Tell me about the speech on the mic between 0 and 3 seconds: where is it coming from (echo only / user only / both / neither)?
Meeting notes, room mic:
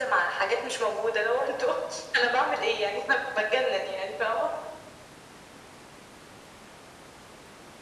echo only